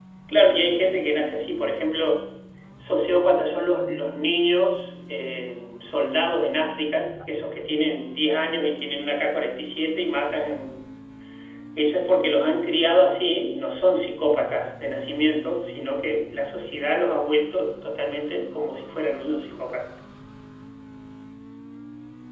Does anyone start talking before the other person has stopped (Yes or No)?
No